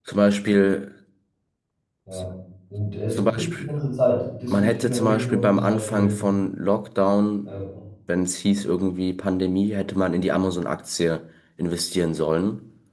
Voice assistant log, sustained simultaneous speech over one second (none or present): present